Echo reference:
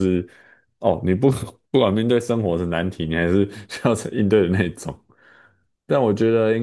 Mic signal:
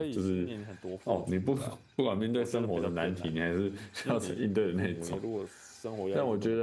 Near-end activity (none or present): present